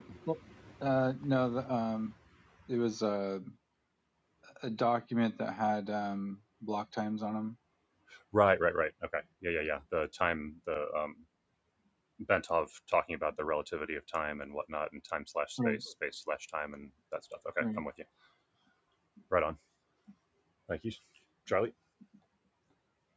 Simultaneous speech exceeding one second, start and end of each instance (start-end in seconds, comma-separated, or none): none